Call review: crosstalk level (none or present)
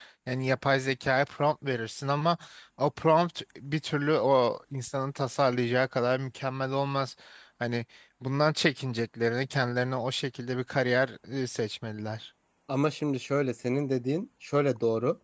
none